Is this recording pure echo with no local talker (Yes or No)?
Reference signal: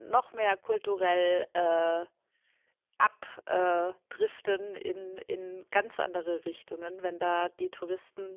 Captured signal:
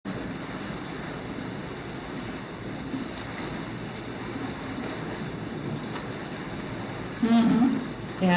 No